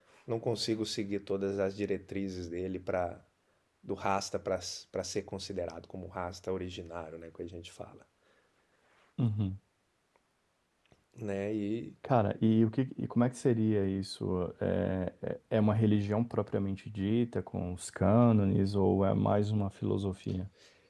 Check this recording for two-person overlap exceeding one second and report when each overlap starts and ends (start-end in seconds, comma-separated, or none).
none